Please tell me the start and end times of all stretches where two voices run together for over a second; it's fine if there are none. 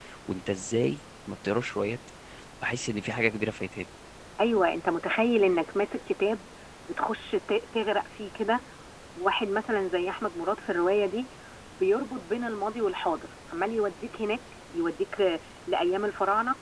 none

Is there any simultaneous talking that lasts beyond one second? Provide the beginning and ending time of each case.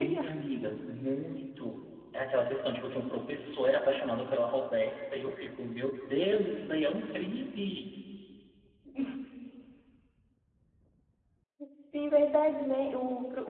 none

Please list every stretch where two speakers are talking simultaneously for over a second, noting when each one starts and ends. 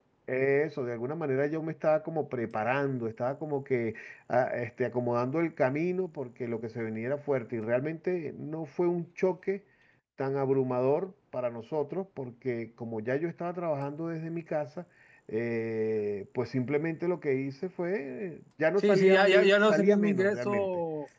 18.8-20.7

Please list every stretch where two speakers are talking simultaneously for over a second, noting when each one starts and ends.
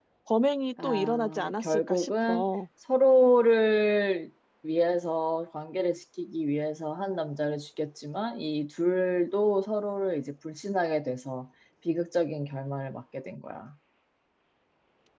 0.8-2.4

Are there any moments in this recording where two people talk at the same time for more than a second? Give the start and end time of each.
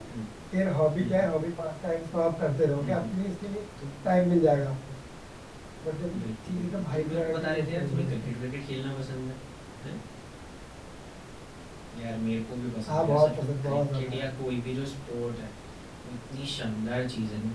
6.2-8.4, 12.9-14.3

